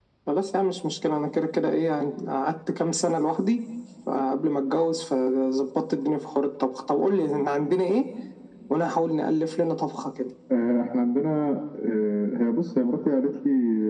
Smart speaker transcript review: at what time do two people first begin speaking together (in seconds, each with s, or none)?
none